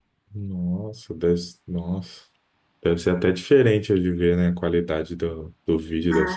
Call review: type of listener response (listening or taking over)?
taking over